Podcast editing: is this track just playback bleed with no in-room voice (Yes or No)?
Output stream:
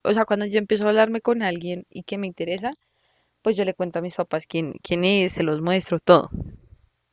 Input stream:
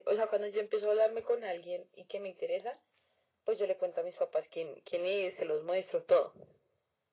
Yes